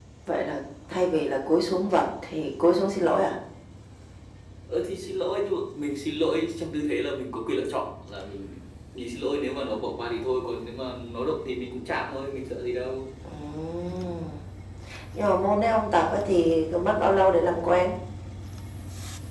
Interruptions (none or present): none